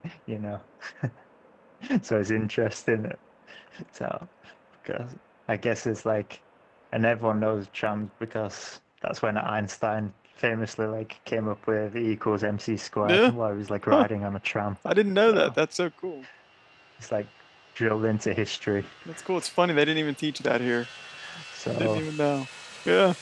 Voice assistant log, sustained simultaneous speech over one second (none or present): none